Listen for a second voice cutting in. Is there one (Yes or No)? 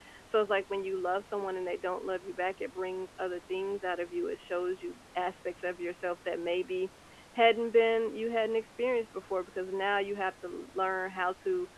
No